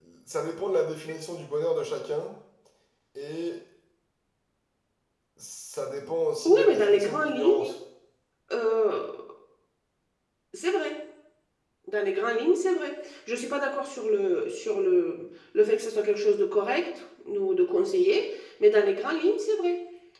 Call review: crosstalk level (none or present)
present